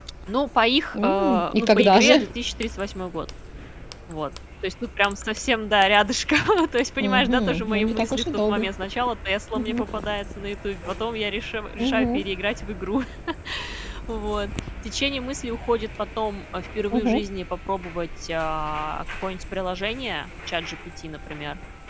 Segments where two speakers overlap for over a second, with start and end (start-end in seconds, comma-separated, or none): 0.9-2.3, 7.0-8.7